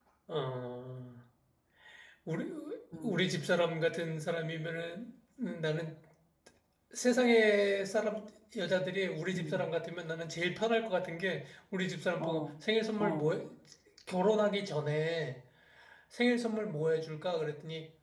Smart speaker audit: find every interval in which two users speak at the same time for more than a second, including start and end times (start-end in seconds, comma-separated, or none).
none